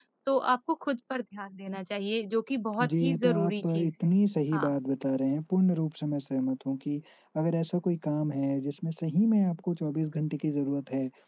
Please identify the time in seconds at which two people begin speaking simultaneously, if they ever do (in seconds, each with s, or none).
2.8 s